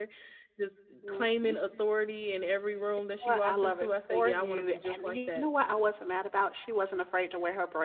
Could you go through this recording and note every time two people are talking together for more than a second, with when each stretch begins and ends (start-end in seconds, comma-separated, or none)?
3.2-5.5